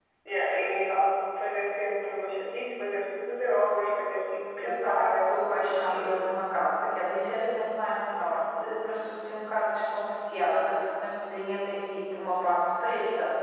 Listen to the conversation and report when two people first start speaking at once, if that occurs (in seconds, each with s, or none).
4.6 s